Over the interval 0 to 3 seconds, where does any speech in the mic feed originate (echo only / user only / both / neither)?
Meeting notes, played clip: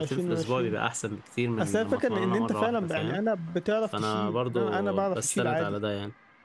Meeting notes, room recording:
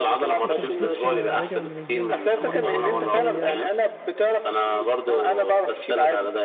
both